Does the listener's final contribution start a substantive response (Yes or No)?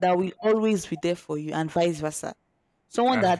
No